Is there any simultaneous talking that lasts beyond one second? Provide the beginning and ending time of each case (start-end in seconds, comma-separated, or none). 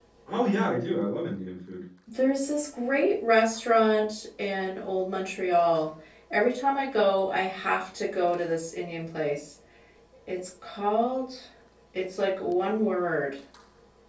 none